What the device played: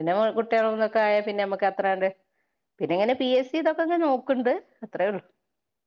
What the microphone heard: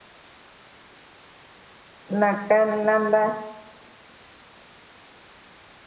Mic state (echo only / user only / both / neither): user only